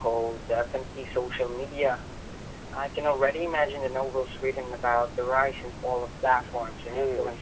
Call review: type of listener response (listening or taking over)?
taking over